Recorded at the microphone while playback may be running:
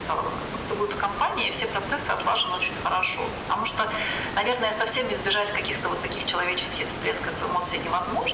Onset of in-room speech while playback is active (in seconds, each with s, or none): none